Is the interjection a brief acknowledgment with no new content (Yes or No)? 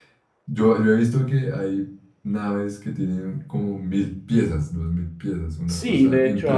No